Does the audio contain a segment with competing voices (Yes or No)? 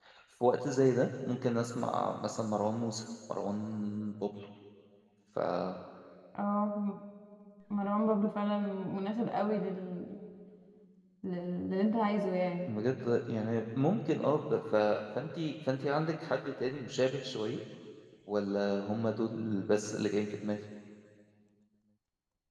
No